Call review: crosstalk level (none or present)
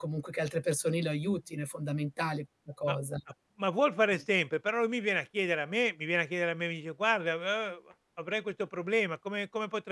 none